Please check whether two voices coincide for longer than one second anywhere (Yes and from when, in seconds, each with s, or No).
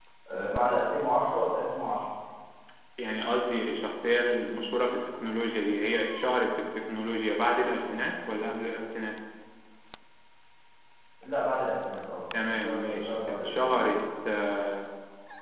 Yes, from 12.3 s